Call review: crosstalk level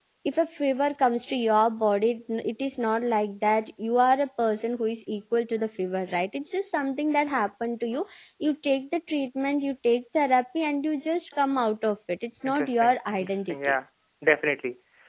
present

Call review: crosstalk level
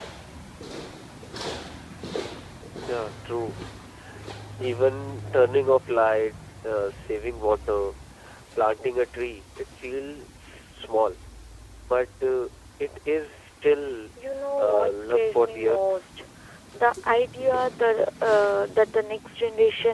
present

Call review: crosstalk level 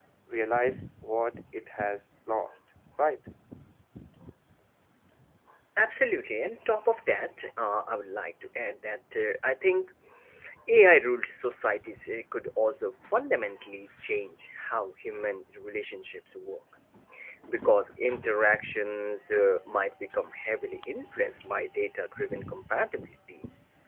none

